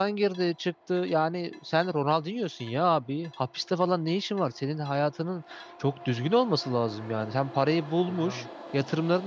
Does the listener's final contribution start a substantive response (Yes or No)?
No